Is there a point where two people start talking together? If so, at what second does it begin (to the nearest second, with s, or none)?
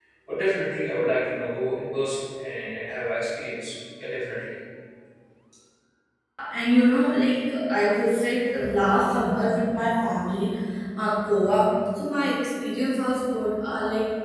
none